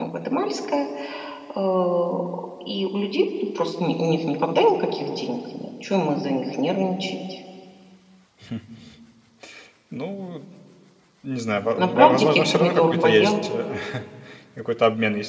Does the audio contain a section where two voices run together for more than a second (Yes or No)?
Yes